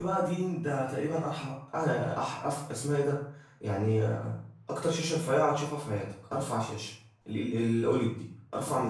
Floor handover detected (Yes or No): Yes